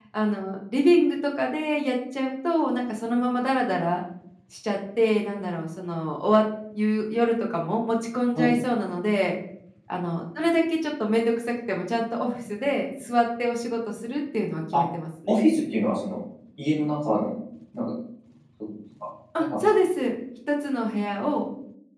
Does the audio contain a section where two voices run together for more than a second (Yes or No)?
No